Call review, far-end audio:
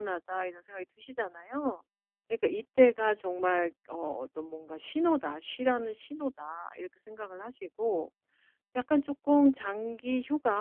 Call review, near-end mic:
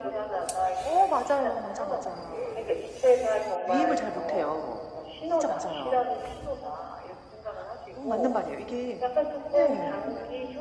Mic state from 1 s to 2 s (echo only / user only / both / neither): both